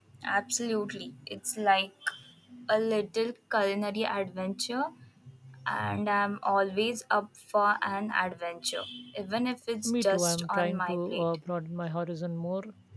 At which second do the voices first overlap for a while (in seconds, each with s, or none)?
9.8 s